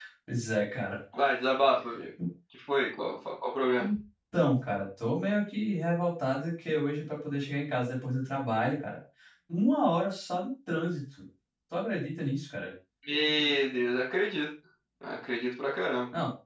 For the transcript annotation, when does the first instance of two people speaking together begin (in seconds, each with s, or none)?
none